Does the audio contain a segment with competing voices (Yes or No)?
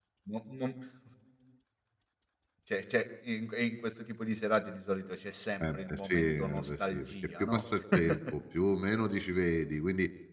Yes